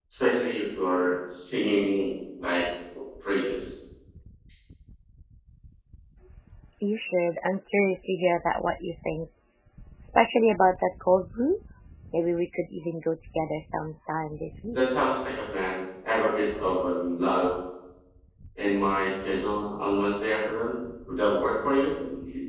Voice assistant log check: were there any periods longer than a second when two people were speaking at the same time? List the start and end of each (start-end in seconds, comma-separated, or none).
none